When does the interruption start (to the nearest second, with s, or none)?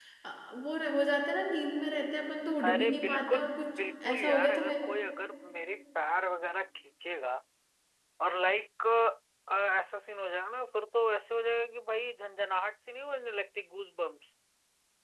3 s